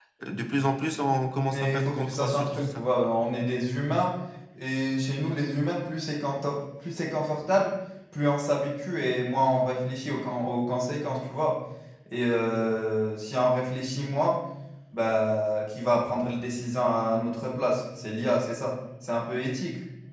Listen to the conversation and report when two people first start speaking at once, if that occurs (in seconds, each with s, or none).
1.5 s